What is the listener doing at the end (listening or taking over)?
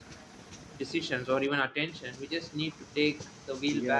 taking over